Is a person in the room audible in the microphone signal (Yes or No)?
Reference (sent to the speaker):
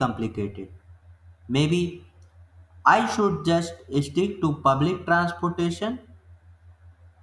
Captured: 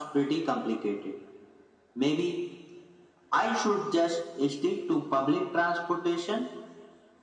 No